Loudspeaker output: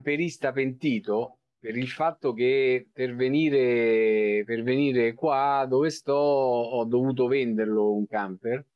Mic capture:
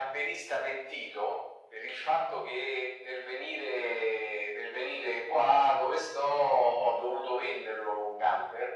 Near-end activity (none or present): none